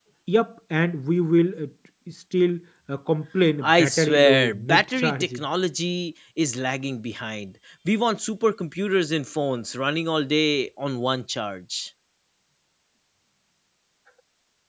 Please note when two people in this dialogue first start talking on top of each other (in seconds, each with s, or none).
3.6 s